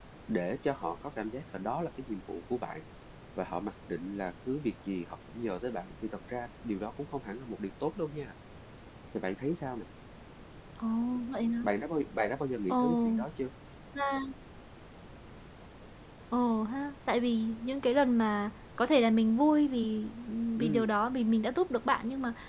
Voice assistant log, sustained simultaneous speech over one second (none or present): none